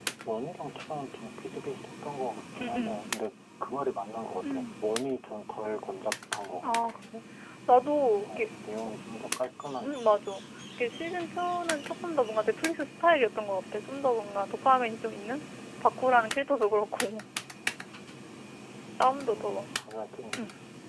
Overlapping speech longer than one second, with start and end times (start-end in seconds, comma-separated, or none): none